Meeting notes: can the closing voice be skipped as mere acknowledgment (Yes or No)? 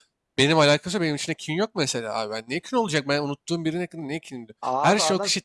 Yes